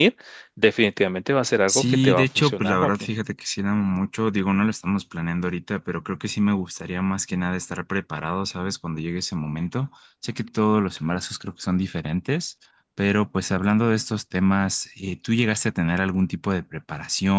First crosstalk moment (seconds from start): 1.7 s

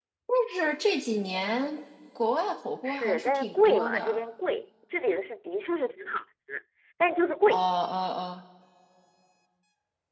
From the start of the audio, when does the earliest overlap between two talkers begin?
2.8 s

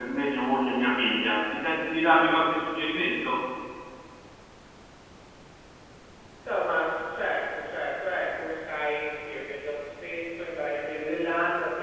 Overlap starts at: none

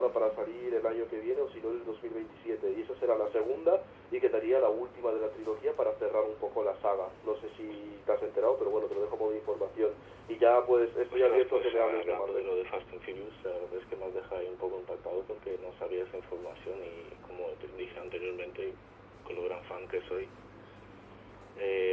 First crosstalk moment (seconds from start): 11.1 s

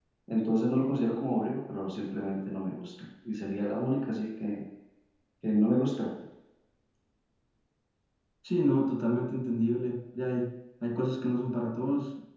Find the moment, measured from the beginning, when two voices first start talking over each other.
none

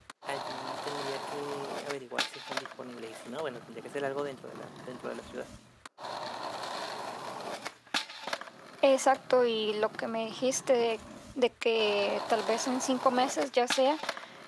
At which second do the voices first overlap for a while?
none

